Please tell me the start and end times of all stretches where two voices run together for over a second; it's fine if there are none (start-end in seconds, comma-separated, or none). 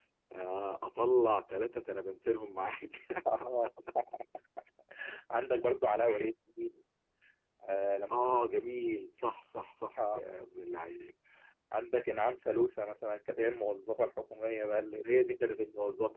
none